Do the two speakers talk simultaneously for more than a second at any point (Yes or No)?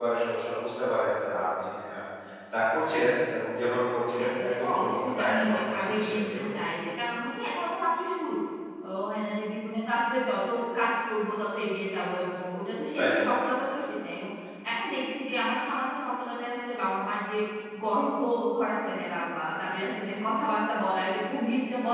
Yes